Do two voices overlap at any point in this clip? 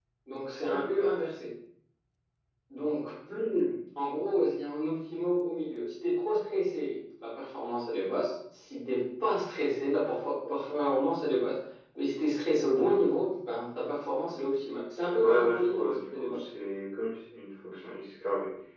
Yes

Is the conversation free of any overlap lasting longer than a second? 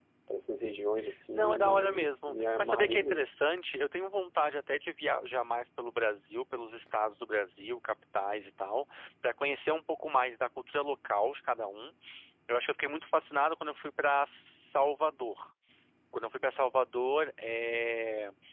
No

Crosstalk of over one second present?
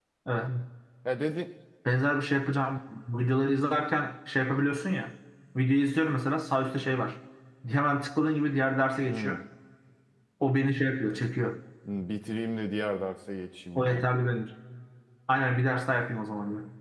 No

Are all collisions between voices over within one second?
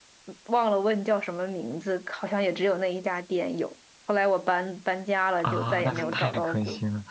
No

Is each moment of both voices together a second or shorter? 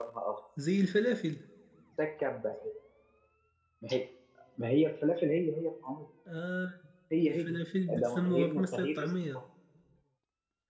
No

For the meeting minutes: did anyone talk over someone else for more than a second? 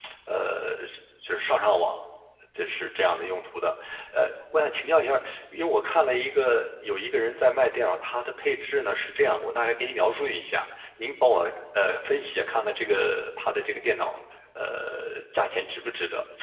No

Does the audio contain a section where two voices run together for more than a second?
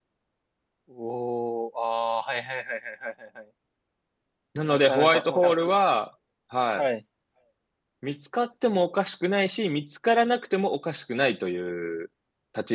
Yes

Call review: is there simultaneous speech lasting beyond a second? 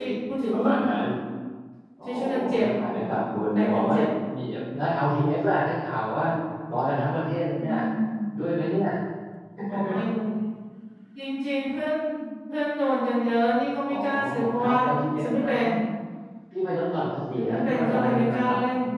Yes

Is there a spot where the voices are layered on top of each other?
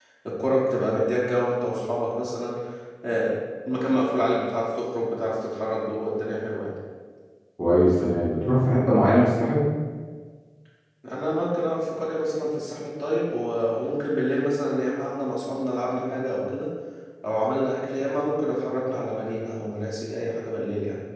No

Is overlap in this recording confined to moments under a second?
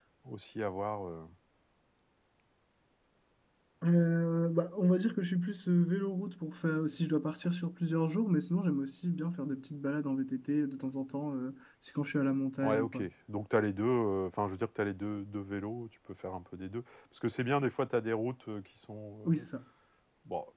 Yes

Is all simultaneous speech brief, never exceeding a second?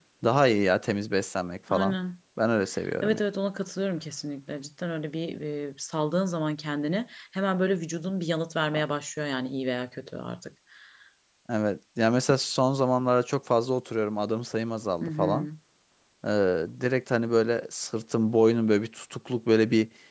Yes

